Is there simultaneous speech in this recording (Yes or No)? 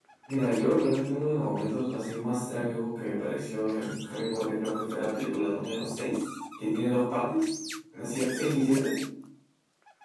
No